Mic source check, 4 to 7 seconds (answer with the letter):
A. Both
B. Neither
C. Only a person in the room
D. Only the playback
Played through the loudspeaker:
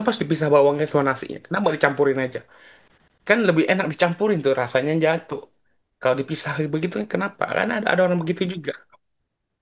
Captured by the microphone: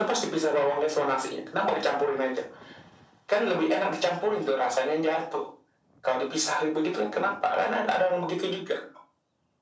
D